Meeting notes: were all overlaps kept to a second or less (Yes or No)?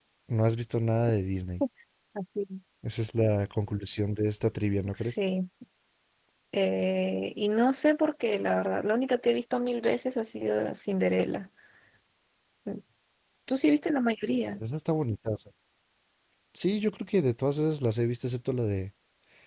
Yes